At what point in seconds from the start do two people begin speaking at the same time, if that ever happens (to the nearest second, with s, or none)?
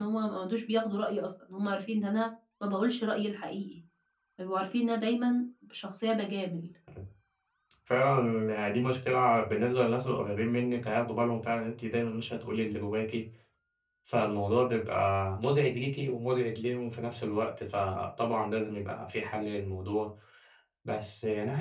none